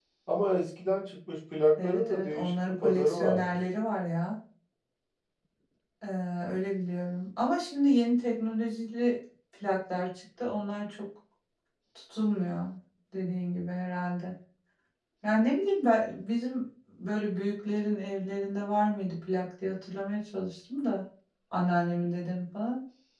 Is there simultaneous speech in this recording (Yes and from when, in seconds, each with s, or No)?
Yes, from 1.8 s